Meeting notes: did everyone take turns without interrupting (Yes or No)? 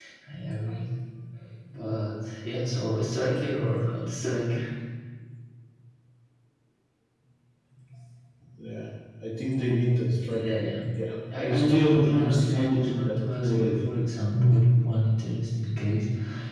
No